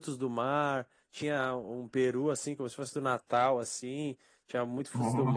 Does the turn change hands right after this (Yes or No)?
No